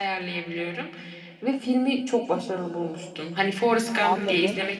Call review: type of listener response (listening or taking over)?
taking over